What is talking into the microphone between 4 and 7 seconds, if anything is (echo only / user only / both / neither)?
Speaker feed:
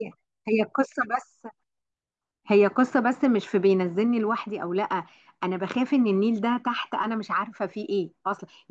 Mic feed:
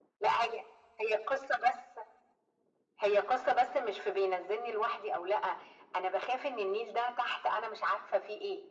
echo only